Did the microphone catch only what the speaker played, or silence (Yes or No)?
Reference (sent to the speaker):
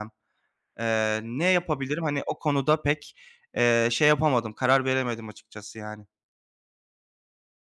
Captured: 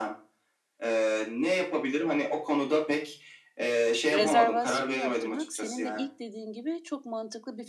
No